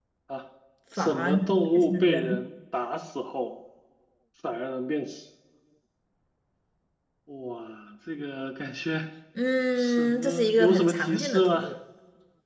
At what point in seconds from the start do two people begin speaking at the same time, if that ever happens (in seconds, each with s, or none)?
1.0 s